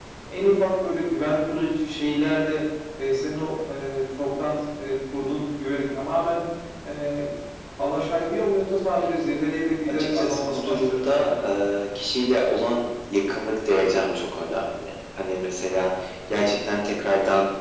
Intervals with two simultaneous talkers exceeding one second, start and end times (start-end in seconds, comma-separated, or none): 9.9-11.4